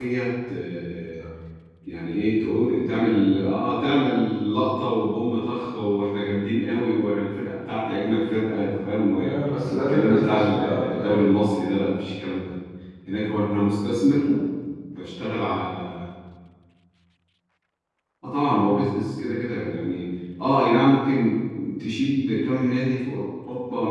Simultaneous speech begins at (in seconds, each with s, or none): 9.7 s